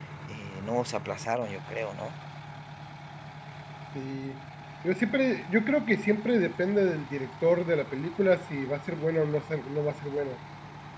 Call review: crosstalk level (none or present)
none